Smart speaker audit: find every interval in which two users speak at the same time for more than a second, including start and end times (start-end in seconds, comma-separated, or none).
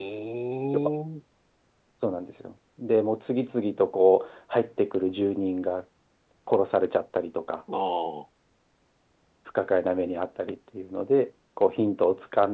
none